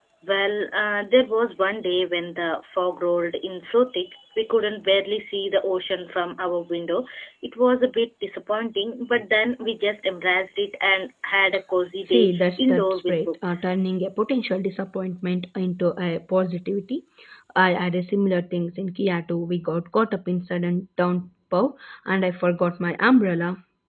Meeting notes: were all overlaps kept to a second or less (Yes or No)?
No